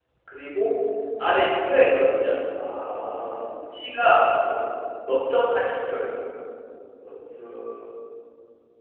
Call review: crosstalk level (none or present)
none